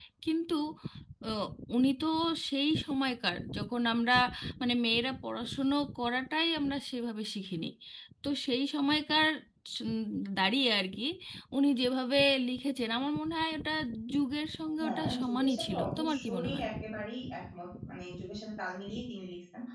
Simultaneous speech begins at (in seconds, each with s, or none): 14.8 s